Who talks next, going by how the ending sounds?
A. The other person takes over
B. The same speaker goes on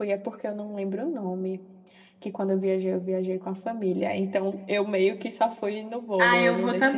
A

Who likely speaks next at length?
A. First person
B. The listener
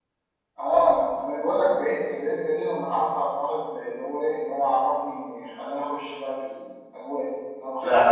B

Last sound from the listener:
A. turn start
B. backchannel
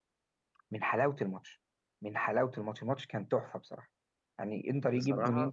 B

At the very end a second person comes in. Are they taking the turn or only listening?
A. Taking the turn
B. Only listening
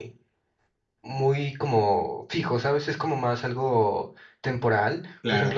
B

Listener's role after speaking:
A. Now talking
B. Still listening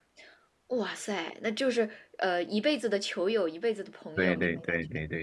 A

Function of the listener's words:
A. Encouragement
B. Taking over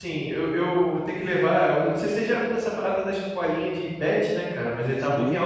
A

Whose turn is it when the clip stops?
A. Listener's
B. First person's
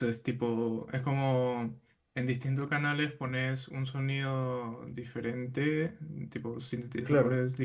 B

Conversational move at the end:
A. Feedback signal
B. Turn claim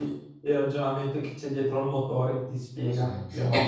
B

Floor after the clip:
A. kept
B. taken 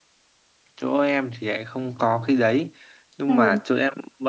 A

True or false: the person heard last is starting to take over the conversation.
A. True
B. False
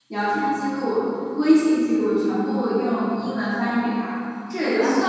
B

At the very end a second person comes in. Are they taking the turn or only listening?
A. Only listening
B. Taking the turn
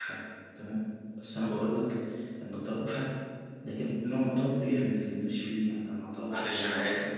B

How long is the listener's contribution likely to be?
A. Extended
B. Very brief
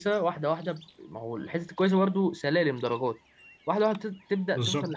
B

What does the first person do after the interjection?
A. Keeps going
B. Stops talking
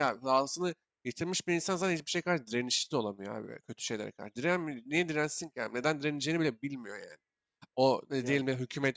A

